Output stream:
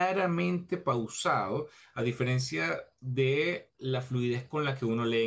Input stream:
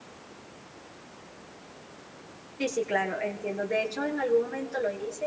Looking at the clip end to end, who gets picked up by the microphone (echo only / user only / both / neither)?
user only